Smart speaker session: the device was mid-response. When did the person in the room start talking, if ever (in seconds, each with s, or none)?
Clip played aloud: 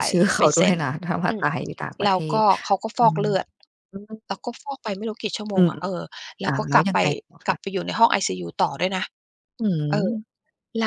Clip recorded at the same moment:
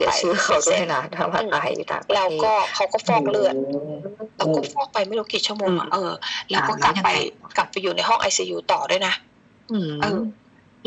3.0 s